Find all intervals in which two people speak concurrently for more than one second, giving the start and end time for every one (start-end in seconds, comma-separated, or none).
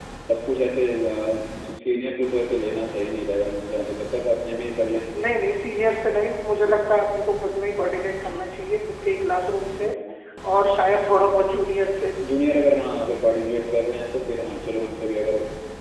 none